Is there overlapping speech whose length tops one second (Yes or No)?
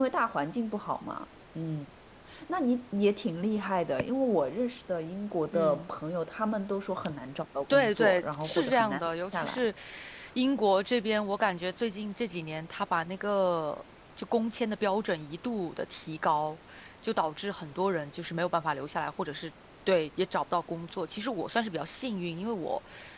Yes